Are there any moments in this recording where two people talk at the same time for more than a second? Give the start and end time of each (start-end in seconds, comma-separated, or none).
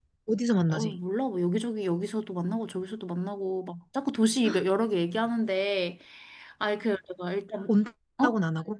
none